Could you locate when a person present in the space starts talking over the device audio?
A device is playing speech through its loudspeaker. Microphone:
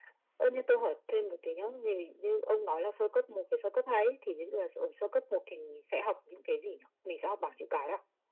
none

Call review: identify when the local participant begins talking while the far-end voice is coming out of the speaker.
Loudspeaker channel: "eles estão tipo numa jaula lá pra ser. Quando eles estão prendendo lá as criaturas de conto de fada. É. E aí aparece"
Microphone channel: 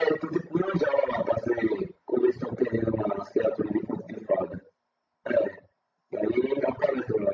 none

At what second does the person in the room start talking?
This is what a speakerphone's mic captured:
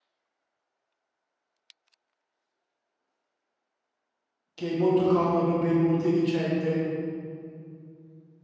4.5 s

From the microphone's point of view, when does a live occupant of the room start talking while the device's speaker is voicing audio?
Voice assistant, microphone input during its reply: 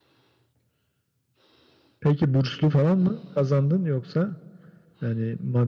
none

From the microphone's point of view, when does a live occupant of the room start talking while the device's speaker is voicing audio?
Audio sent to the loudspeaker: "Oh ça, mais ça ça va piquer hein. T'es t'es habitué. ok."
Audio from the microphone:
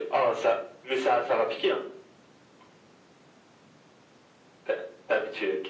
none

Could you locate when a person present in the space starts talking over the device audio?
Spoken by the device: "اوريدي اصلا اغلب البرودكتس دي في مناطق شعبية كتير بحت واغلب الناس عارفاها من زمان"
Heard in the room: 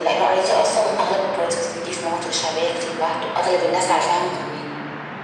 none

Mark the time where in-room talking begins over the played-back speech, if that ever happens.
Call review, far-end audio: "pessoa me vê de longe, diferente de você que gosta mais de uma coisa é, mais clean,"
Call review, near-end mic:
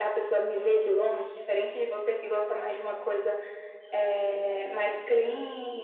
none

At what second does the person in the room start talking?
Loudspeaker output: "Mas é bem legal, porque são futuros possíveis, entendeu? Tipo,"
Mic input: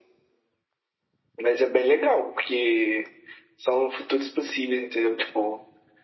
none

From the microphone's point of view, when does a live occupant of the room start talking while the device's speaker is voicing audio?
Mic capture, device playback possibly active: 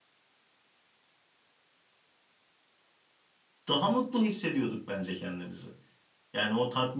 3.7 s

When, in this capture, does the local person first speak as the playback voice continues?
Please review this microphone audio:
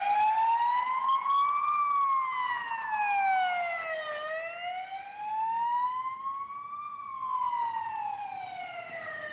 none

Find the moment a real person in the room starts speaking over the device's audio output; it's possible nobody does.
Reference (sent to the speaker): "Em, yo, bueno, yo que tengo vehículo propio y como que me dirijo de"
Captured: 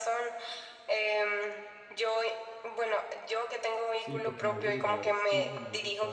4.0 s

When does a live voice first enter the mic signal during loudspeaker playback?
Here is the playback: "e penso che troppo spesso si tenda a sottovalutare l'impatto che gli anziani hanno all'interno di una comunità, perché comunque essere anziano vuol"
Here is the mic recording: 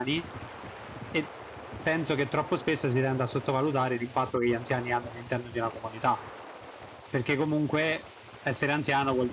none

